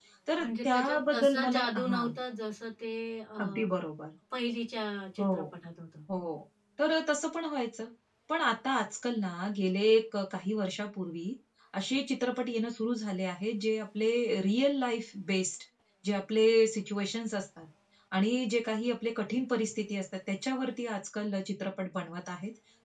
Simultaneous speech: Yes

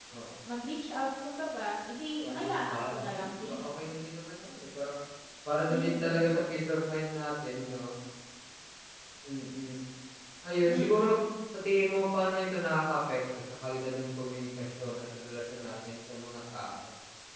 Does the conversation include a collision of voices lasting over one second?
Yes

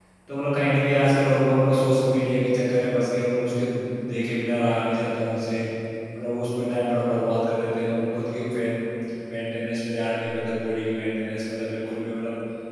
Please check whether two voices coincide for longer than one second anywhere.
No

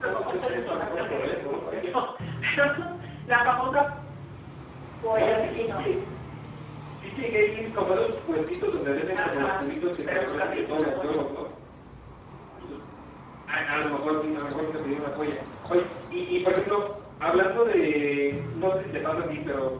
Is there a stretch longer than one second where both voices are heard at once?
Yes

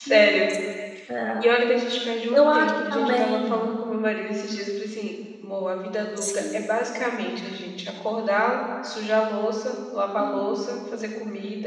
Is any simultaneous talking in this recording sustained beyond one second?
Yes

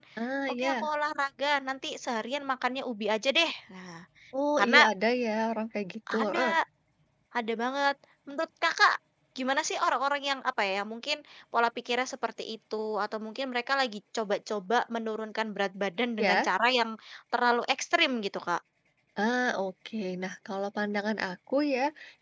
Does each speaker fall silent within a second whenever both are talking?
Yes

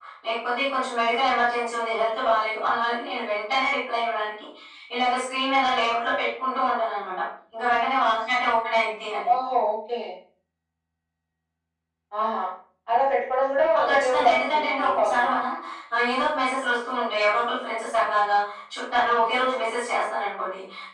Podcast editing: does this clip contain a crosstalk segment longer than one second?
Yes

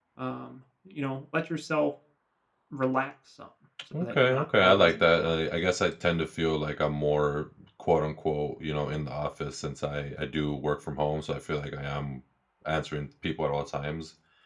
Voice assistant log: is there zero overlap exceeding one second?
No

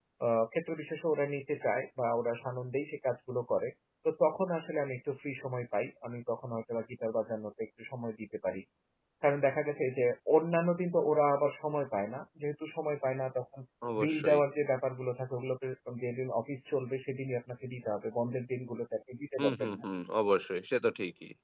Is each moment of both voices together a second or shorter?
Yes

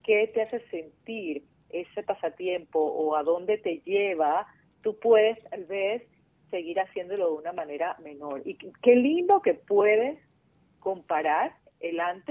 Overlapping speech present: No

